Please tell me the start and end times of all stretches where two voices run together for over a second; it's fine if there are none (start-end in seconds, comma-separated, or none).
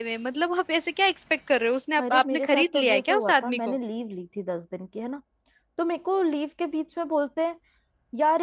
2.0-3.8